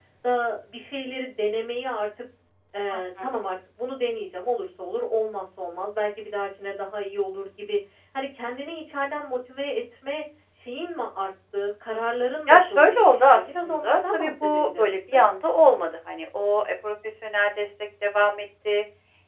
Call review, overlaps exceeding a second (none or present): present